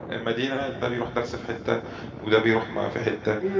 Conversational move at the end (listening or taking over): taking over